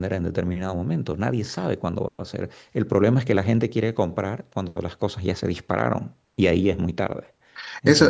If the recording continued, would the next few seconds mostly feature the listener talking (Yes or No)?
Yes